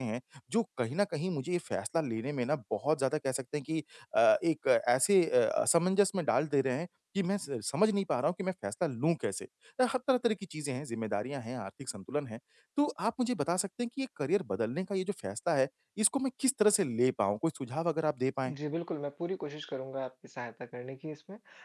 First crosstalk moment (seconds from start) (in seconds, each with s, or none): none